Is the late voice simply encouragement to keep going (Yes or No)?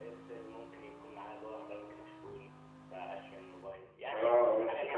No